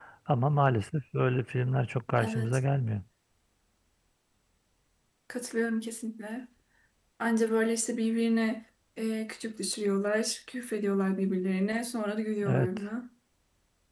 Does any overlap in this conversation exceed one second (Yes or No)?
No